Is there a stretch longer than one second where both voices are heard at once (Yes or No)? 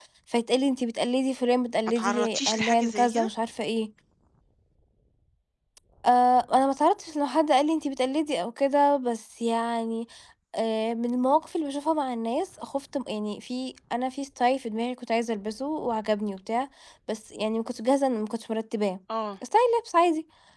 Yes